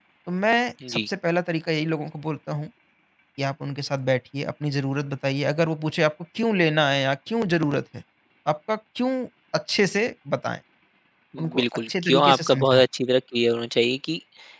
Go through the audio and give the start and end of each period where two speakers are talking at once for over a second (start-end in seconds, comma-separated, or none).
11.6-12.8